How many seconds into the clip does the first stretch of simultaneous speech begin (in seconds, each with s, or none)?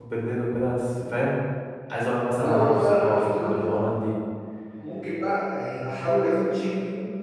2.4 s